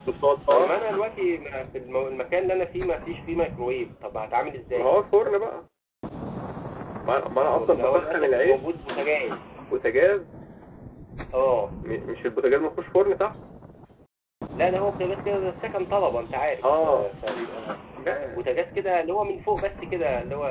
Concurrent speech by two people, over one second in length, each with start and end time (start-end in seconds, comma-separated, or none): 7.4-8.6